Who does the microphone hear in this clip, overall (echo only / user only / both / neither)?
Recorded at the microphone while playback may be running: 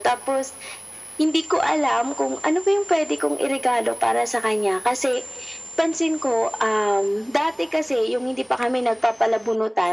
echo only